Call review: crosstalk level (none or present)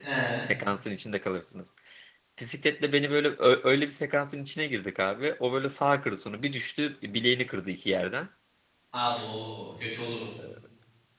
none